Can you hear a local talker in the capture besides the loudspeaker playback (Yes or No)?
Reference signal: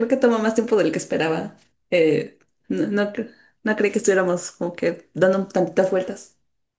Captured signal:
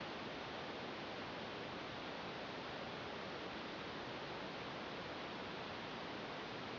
No